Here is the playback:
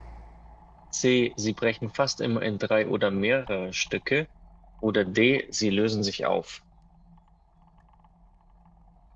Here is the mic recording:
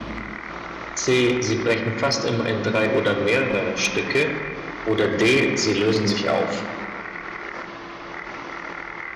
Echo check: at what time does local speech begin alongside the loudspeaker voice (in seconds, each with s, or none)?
none